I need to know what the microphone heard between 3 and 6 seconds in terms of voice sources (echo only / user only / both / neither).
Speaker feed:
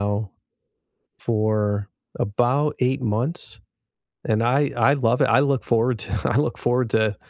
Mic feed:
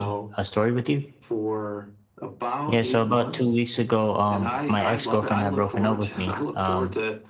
both